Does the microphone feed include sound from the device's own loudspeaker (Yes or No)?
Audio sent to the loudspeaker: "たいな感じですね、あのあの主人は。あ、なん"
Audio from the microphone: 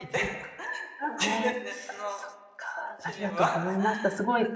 Yes